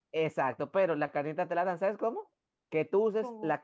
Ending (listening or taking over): listening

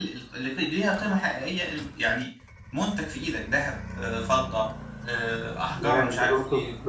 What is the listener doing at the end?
taking over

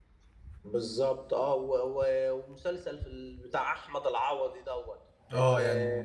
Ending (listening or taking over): listening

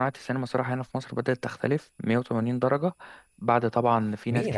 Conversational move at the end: taking over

